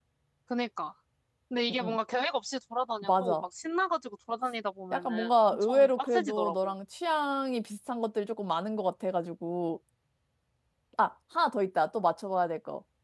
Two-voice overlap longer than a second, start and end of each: 4.9-6.7

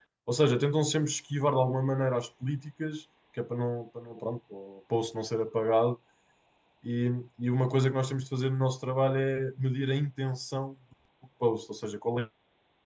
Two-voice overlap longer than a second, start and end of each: none

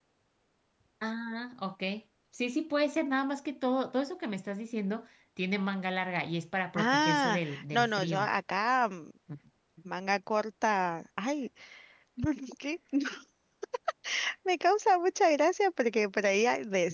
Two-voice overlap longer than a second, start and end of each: 6.8-8.3

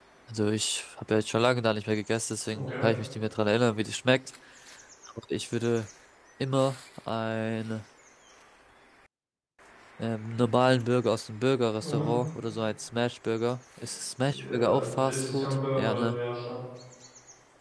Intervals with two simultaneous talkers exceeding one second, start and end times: 14.3-16.2

